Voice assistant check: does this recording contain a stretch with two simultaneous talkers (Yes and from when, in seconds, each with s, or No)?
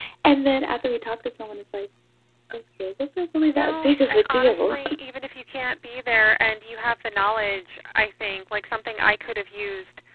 Yes, from 3.5 s